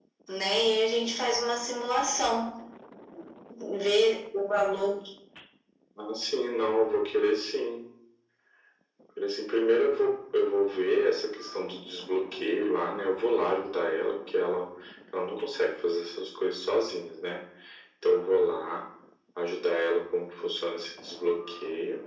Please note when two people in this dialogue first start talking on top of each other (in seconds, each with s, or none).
none